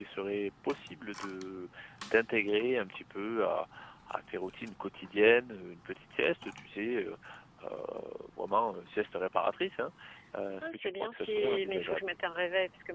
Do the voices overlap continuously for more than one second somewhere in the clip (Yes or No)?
Yes